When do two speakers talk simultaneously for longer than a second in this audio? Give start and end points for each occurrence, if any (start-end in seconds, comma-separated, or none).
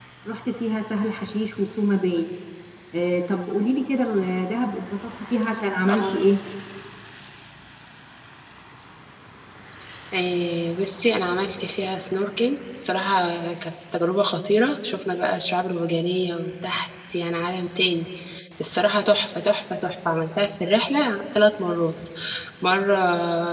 none